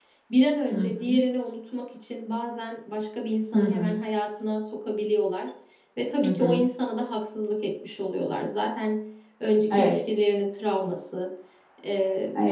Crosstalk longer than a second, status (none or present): none